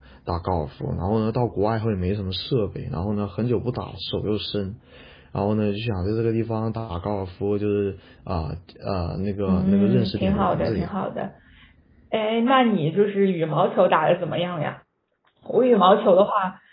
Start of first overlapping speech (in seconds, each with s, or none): 9.5 s